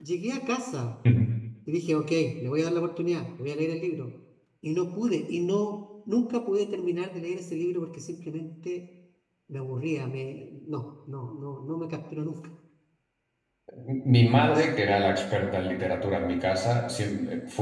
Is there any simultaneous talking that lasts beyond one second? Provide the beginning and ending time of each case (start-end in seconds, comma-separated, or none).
none